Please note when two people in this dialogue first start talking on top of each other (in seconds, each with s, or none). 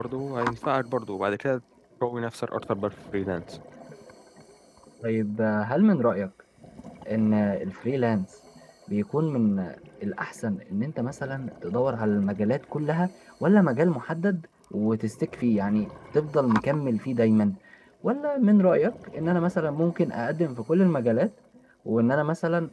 none